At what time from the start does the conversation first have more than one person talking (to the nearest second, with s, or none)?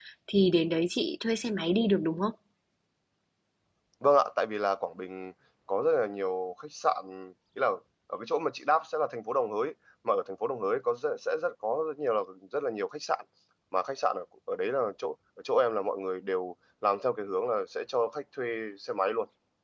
none